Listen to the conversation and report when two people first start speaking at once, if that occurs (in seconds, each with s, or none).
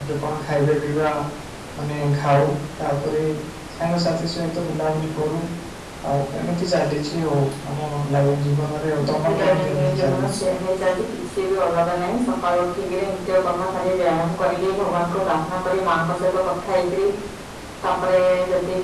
9.0 s